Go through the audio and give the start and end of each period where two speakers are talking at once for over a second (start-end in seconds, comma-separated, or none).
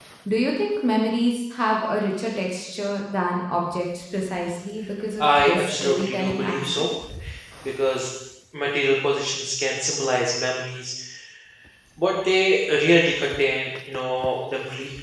5.2-6.9